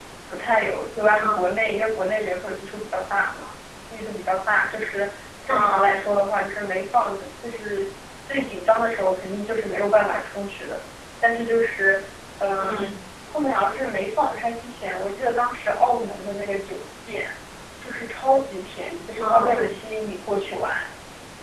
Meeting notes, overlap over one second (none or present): none